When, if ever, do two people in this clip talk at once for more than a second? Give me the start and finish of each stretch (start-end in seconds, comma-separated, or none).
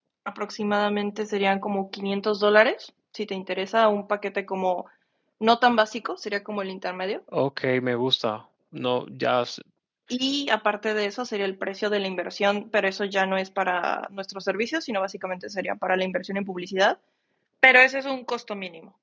none